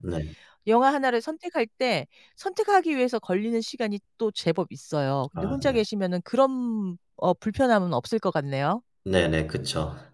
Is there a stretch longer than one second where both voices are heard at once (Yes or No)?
No